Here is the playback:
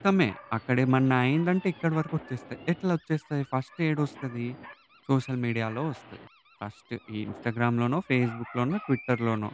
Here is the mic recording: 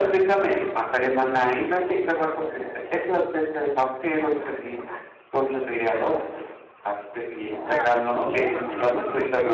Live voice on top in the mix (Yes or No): No